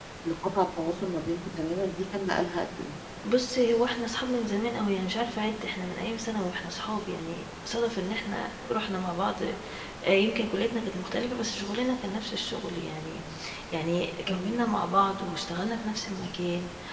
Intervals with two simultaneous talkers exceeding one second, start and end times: none

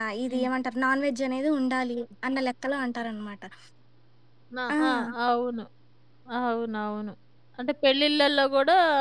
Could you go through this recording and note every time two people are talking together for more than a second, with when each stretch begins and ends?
none

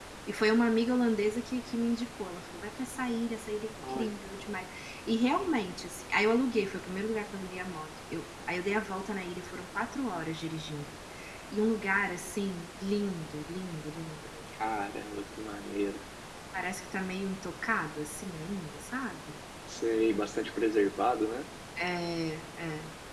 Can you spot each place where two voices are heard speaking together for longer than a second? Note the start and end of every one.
none

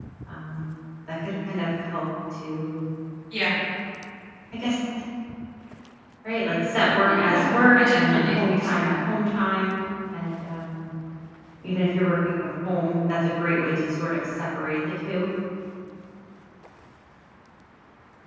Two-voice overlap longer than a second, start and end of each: 7.0-9.0

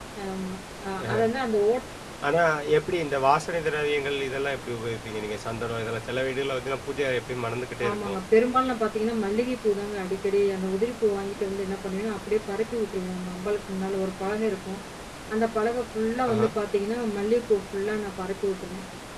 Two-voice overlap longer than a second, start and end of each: none

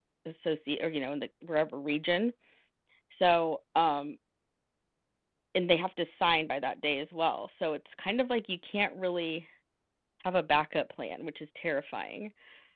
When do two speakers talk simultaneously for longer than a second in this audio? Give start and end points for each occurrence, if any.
none

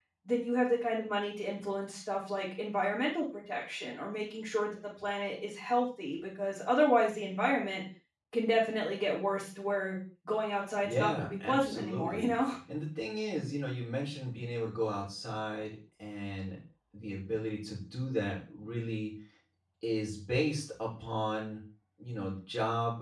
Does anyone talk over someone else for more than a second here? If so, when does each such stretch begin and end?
10.8-12.3

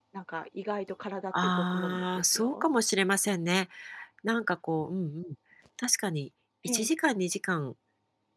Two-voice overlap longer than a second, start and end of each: 1.3-2.6

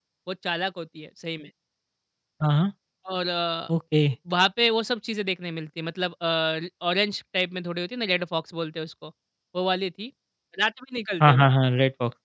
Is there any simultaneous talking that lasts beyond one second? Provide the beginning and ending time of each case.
none

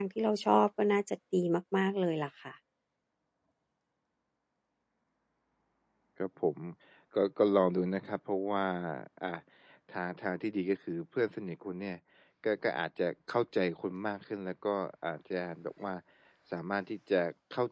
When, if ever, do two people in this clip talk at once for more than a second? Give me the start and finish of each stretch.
none

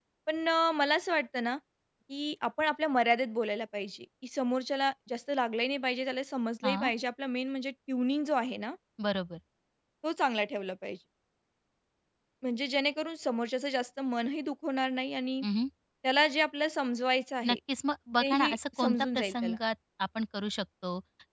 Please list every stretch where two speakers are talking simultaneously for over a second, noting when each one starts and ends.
18.2-19.6

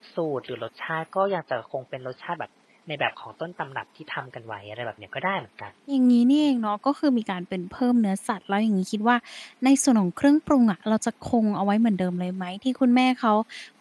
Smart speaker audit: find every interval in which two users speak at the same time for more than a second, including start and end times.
none

